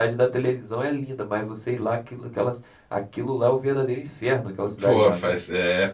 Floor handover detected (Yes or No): Yes